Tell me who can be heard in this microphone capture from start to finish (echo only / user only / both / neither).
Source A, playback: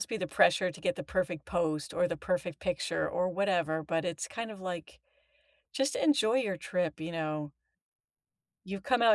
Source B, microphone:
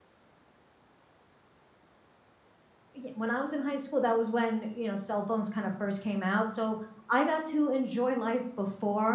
user only